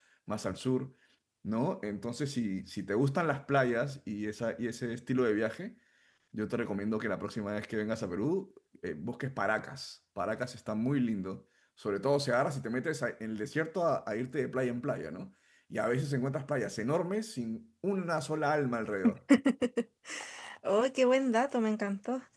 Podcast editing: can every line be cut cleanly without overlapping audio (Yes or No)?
Yes